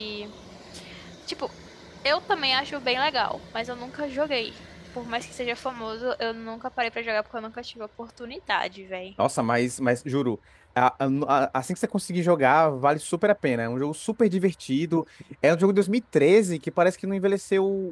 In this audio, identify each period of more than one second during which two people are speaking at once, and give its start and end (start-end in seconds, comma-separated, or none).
none